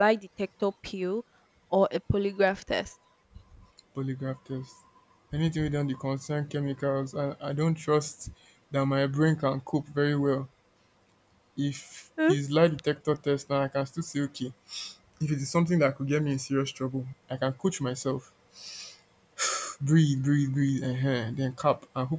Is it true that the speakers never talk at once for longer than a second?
Yes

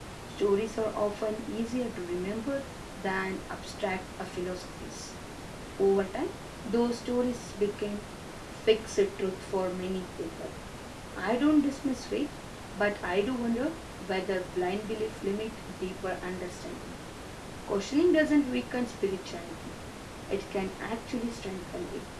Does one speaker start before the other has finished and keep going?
No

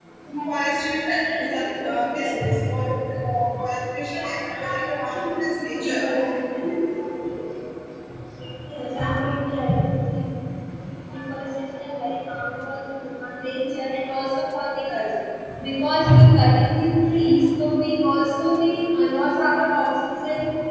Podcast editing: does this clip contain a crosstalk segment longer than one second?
Yes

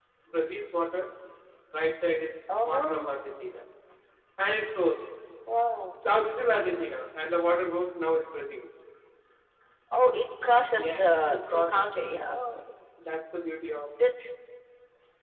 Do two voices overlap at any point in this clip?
Yes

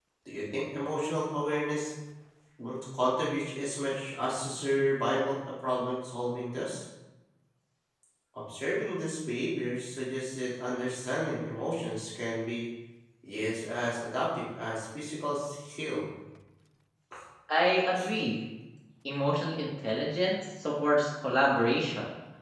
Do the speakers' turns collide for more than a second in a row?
No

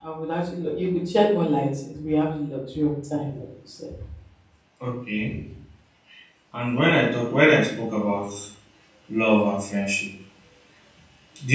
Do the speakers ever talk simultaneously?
No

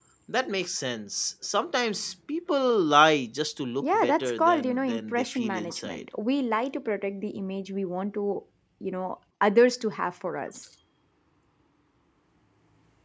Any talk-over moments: Yes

